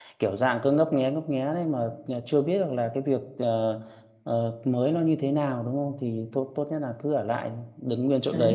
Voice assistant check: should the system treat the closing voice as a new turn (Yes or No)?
Yes